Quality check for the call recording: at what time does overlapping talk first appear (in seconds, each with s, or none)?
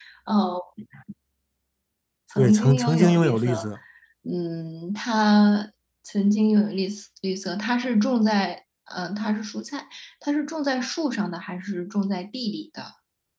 2.4 s